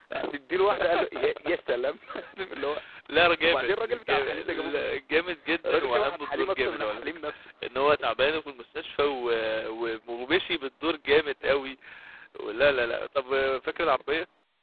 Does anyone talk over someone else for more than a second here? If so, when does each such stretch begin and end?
3.4-5.0, 5.7-7.1

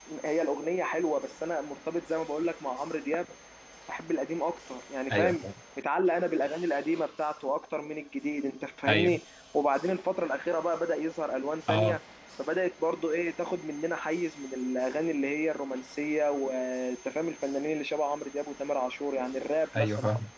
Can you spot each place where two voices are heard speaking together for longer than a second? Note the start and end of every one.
none

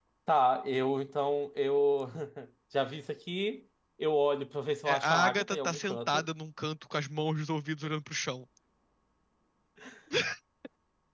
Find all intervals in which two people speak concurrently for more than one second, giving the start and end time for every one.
4.8-6.2

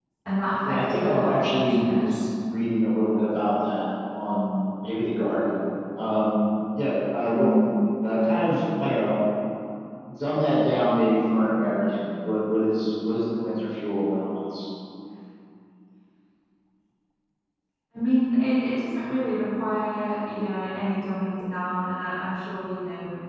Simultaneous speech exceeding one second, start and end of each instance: 0.7-2.2

